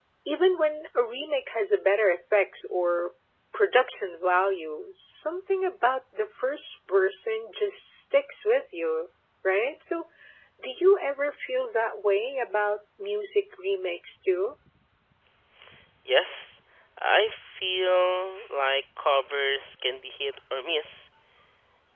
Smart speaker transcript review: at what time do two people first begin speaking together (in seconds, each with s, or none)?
none